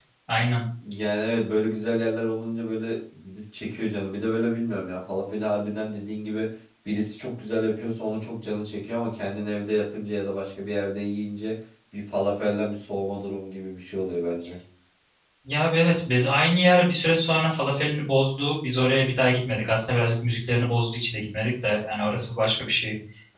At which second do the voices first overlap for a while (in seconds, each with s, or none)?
none